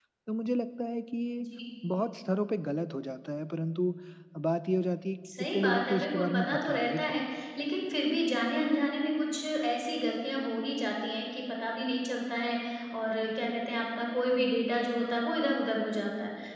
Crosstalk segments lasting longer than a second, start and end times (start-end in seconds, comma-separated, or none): 5.4-7.2